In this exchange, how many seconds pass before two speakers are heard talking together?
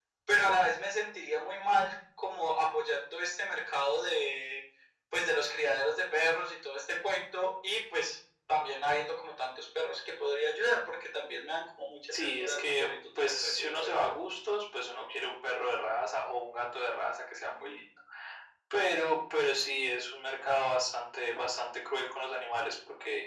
12 s

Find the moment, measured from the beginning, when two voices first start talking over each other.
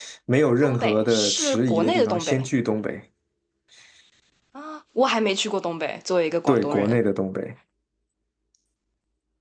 1 s

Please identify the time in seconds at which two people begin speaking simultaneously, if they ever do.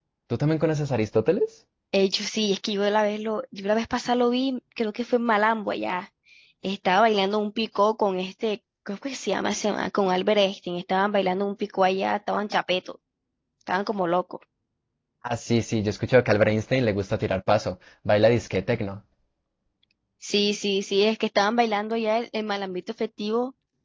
none

